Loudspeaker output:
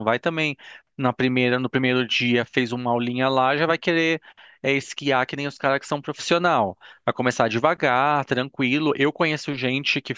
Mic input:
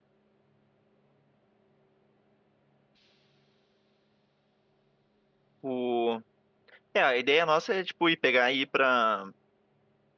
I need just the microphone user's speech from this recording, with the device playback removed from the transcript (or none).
O... É, a ideia nossa é, tipo, ir pegar e ir pra.